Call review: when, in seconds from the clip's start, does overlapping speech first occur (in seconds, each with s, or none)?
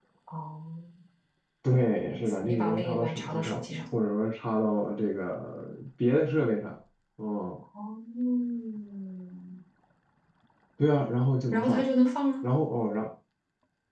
1.8 s